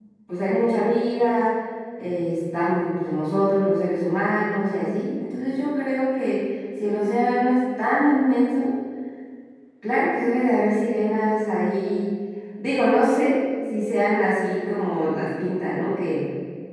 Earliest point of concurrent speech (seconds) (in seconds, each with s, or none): none